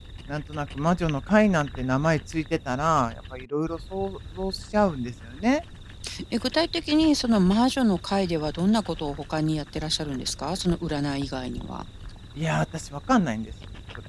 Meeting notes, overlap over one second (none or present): none